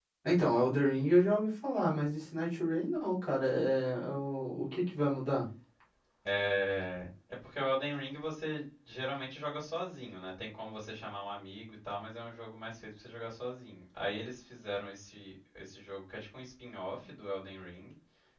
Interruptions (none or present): none